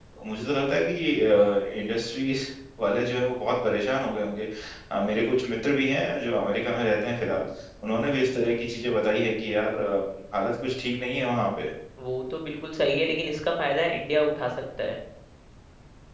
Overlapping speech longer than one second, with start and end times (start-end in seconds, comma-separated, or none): none